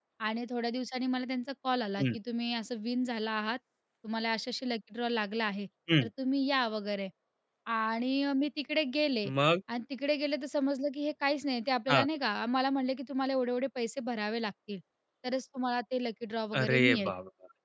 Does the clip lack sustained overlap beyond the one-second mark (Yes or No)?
Yes